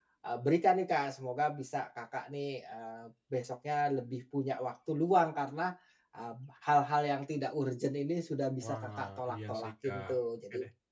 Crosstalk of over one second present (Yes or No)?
Yes